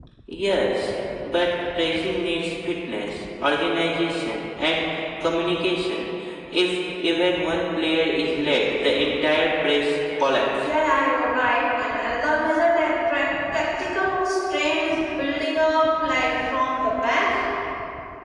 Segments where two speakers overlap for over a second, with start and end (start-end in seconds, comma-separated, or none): none